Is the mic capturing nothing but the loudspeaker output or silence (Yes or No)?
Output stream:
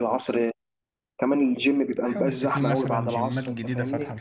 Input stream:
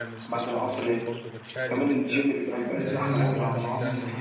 No